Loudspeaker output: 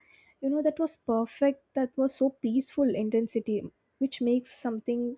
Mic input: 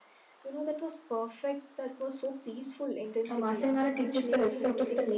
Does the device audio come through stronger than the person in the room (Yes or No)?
No